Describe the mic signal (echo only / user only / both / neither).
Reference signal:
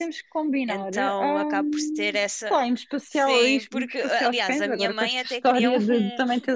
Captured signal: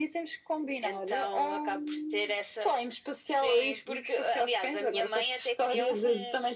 echo only